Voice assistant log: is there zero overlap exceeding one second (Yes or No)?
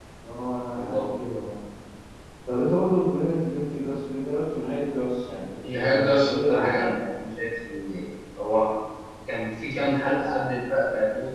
No